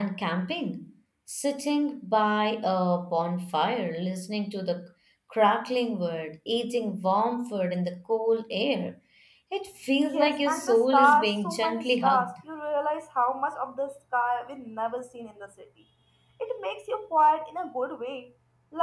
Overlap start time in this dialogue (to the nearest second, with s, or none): 10 s